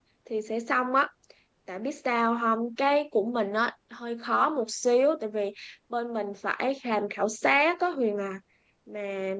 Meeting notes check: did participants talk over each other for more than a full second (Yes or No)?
No